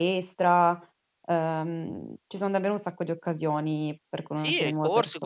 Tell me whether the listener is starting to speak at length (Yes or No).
Yes